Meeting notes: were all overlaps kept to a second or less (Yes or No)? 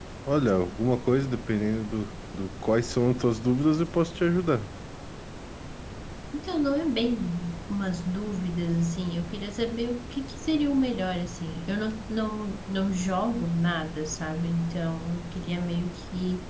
Yes